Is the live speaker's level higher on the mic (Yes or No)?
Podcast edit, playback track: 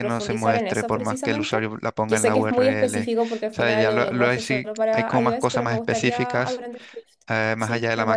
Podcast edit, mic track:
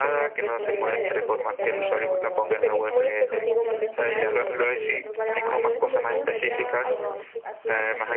No